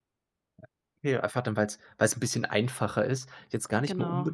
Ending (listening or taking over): listening